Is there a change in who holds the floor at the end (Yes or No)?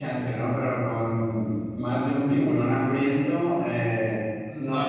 Yes